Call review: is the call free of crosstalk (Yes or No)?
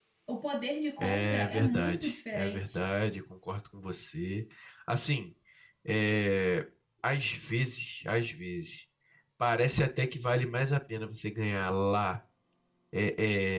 No